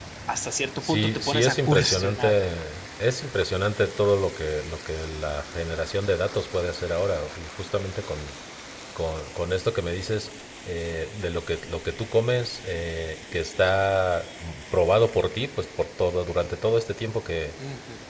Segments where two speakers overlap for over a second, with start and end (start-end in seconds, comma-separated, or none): 0.8-2.3